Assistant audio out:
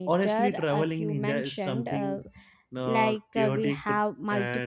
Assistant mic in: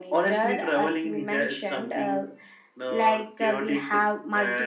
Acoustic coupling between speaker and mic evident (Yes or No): Yes